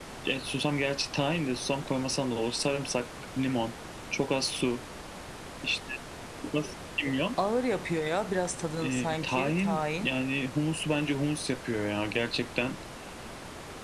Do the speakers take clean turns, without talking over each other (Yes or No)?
No